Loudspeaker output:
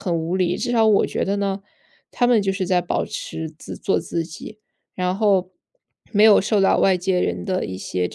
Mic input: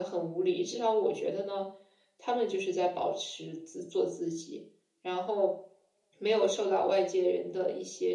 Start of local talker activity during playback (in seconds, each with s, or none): none